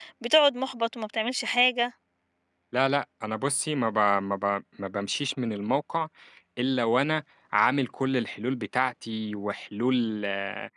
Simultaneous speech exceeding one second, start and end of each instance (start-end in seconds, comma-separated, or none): none